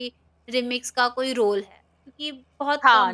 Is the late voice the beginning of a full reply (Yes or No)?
Yes